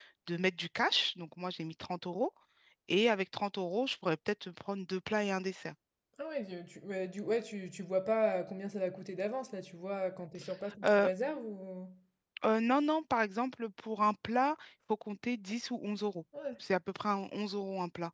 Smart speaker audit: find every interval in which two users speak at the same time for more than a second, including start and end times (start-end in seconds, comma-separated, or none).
none